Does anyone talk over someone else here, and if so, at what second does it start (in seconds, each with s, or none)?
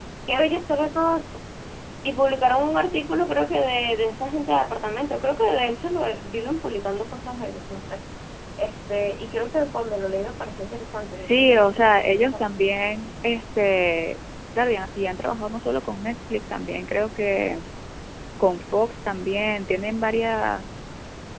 11.2 s